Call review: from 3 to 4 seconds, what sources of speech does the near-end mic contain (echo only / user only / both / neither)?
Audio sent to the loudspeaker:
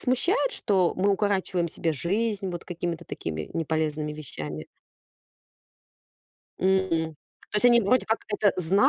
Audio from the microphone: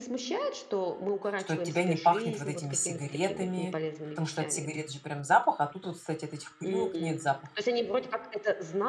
both